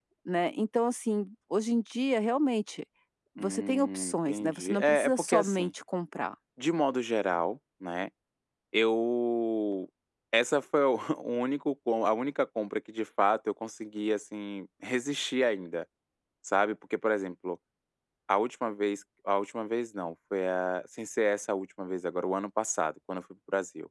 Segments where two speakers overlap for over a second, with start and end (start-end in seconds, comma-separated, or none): 3.4-5.7